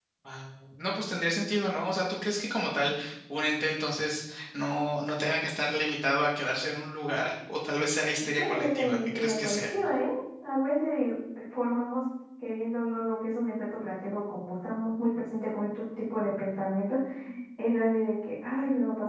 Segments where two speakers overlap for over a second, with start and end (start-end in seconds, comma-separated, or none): 8.4-9.7